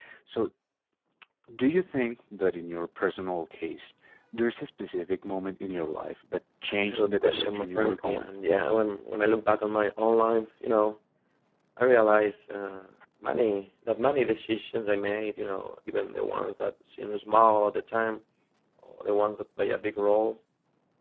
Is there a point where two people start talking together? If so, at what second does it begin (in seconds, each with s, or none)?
6.8 s